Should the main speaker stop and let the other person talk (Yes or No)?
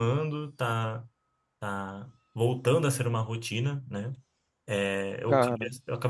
No